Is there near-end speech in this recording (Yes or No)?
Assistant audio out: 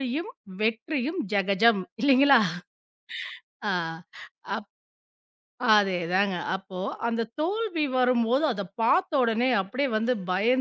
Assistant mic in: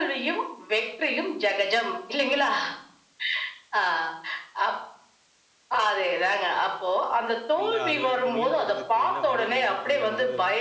Yes